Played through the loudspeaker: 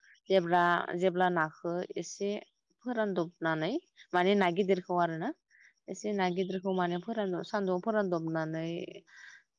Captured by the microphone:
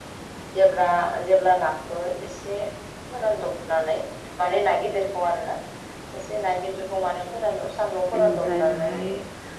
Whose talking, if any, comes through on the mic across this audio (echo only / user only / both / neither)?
both